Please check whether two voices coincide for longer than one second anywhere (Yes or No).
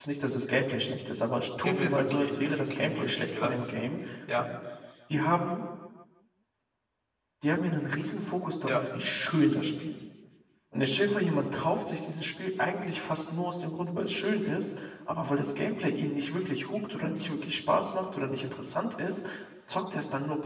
Yes